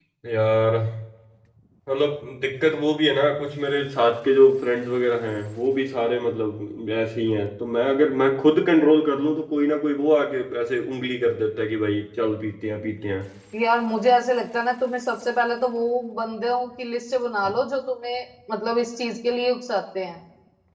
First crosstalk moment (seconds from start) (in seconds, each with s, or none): none